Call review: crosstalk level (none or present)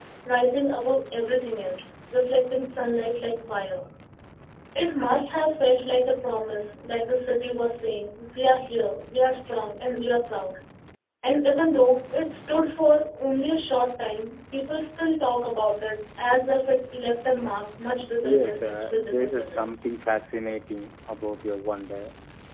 present